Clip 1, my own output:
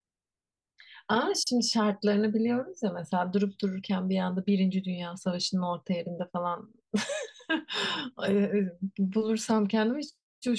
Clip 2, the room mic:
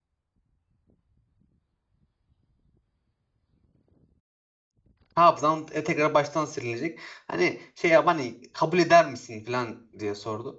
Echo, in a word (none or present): none